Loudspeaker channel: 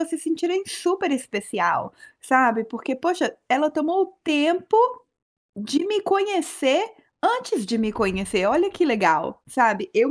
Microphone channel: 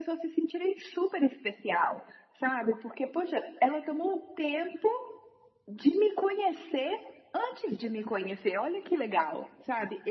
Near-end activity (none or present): none